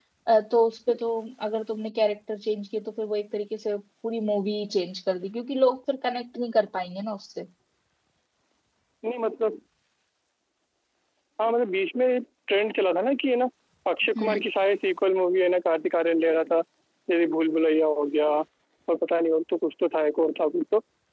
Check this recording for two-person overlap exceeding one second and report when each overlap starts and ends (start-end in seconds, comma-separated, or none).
none